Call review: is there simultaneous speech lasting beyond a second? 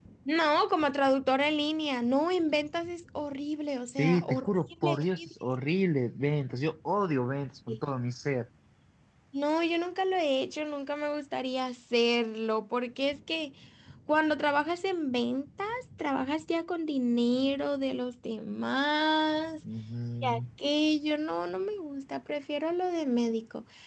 Yes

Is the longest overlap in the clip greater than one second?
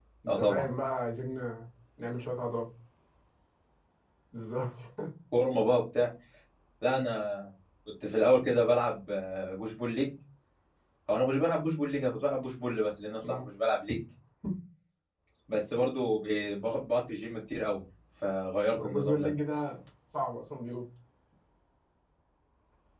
No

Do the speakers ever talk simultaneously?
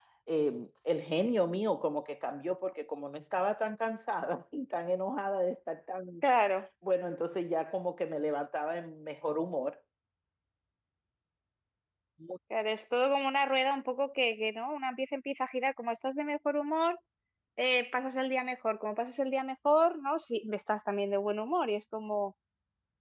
No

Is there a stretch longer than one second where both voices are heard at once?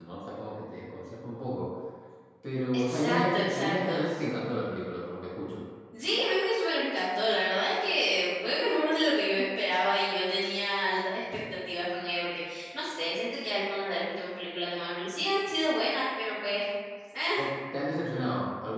Yes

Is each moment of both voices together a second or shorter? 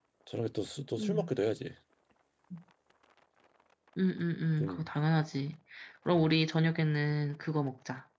Yes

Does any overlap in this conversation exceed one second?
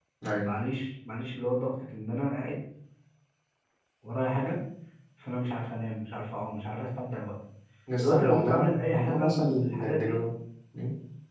Yes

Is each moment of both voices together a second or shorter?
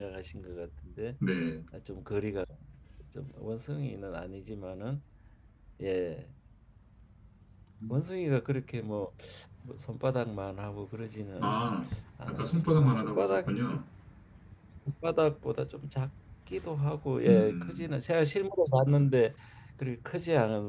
No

